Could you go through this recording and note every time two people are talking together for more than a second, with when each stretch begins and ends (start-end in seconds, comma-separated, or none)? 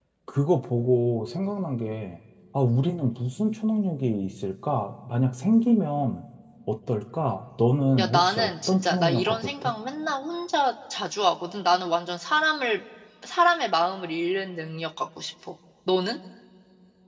8.0-9.7